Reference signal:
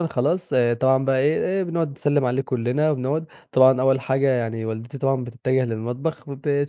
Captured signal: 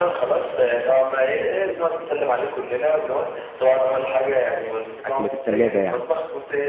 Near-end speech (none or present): present